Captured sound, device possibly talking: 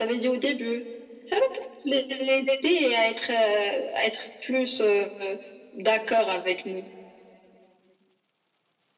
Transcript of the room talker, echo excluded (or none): none